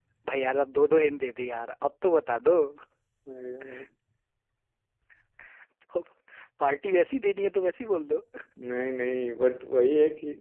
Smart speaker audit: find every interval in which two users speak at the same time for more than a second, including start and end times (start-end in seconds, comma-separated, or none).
none